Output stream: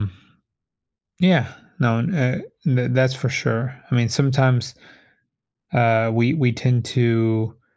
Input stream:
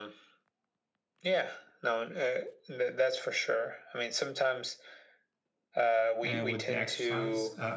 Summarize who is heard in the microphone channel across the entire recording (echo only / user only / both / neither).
both